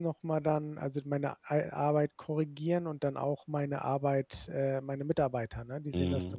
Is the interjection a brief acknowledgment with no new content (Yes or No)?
No